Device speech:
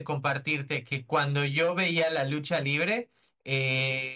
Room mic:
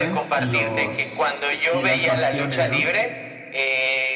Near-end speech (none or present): present